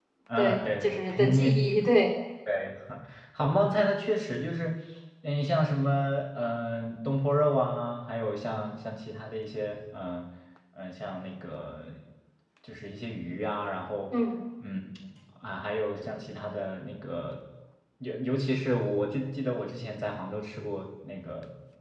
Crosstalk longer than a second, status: present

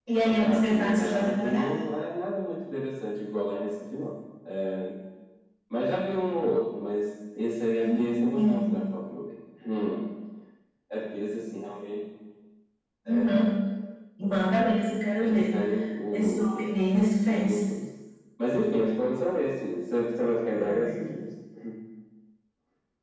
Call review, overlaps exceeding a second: present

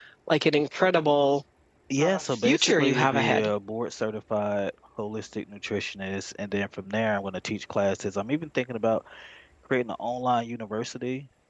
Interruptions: present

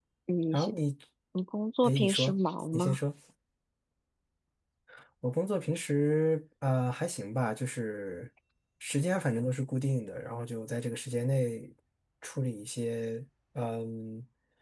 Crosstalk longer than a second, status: none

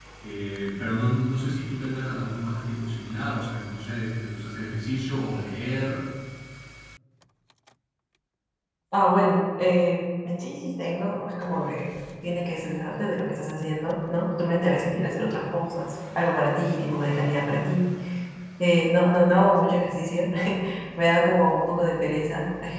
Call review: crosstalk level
none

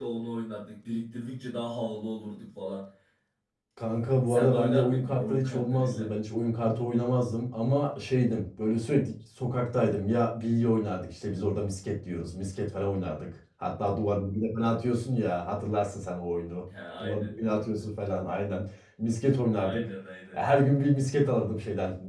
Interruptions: present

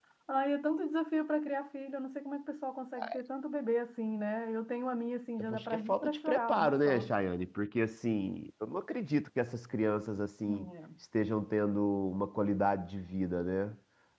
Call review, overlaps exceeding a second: present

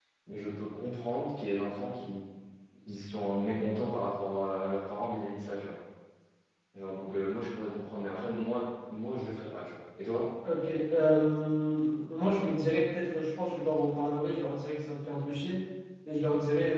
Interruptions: none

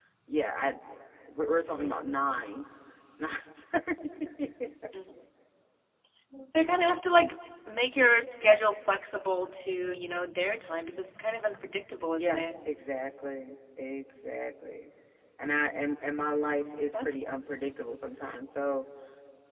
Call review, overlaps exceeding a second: none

